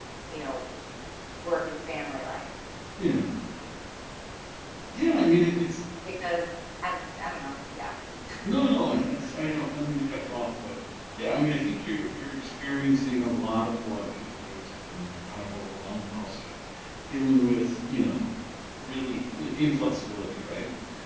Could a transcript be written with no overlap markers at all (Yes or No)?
Yes